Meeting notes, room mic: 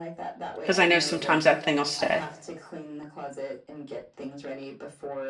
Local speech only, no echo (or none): because I know sometimes that thing will stay.